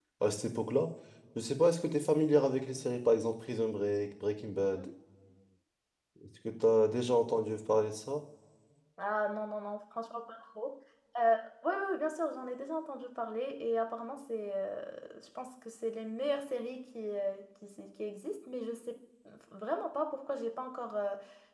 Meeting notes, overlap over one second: none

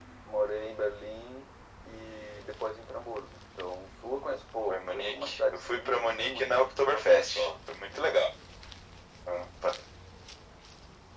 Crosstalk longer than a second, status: present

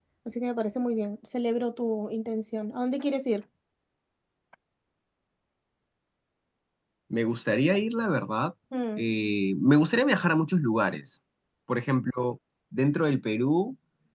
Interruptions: none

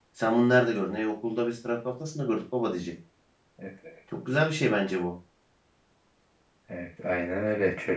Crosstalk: none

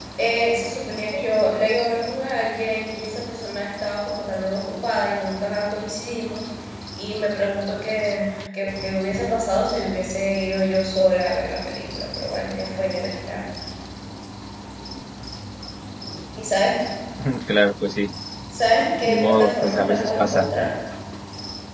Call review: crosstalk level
present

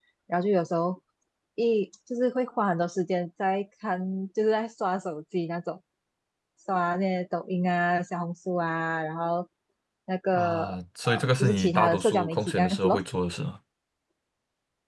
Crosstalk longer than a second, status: present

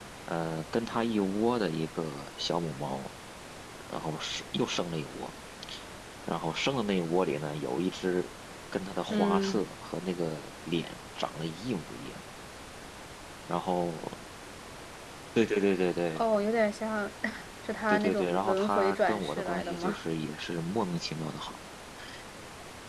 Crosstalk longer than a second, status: present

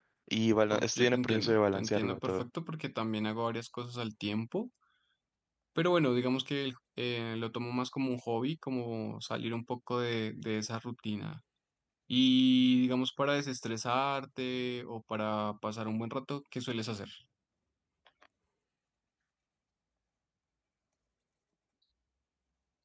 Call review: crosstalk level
present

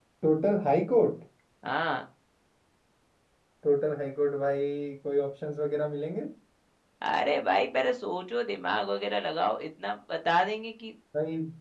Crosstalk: none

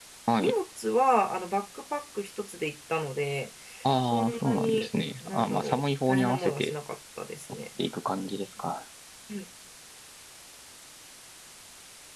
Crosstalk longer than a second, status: present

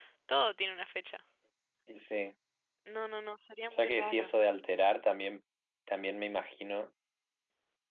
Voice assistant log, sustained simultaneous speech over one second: none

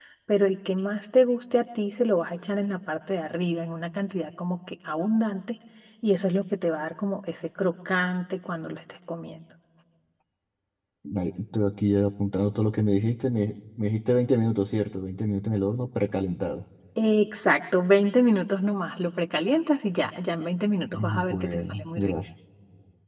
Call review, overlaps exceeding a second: present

